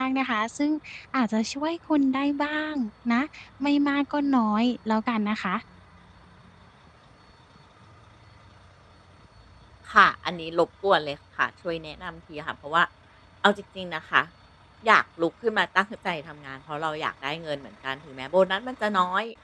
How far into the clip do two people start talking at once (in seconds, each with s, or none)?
none